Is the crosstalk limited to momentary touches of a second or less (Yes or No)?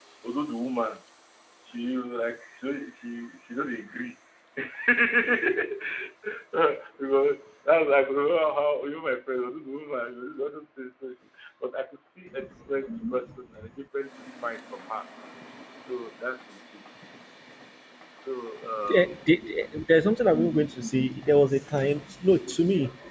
Yes